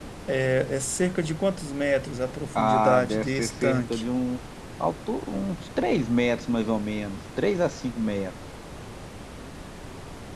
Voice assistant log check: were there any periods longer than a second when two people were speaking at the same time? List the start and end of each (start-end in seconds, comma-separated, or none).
2.5-4.0